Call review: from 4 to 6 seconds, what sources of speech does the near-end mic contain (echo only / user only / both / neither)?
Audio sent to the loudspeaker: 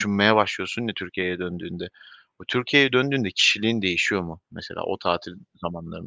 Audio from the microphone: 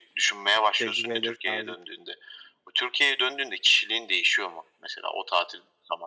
echo only